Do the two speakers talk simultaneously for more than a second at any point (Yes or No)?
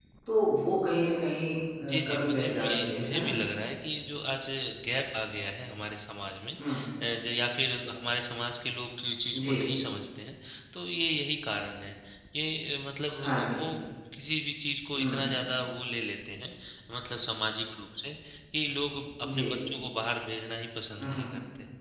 Yes